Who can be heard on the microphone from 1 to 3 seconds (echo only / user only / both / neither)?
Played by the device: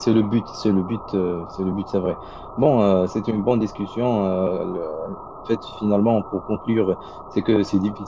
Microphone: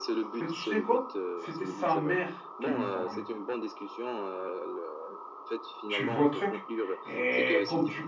both